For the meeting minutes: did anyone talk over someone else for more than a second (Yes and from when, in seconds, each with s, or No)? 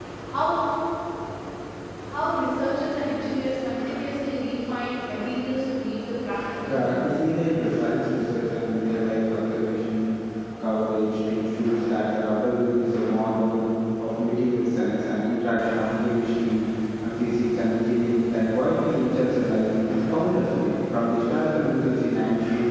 No